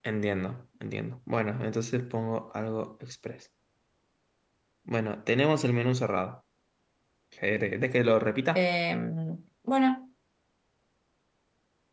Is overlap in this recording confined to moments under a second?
Yes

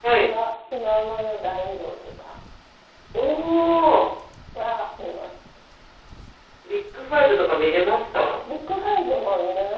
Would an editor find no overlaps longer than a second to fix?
Yes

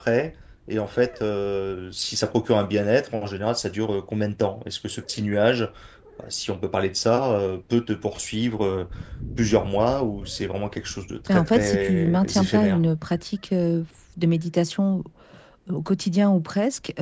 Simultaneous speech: Yes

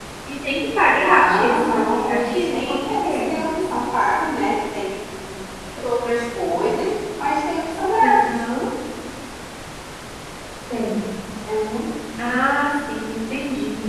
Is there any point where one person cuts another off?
Yes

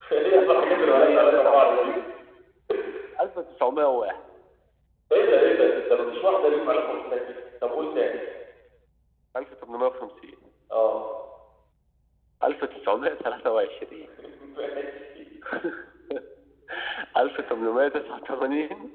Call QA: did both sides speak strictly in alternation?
No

